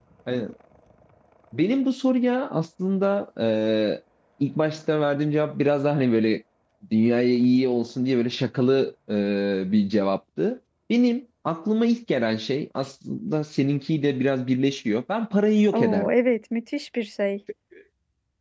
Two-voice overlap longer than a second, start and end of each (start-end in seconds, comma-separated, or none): none